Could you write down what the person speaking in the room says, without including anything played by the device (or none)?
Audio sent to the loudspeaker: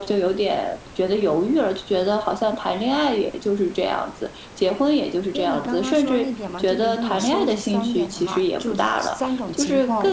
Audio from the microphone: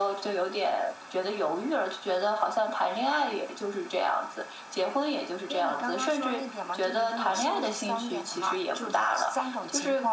none